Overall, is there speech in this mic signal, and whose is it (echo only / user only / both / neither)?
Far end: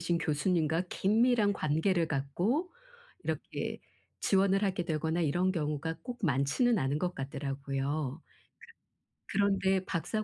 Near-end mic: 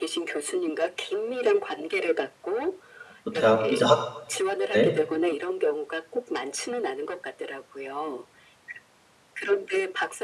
both